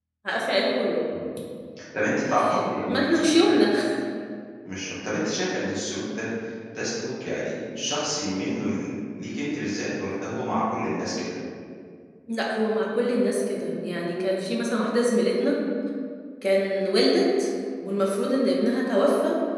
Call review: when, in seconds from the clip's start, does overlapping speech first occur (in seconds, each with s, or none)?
2.3 s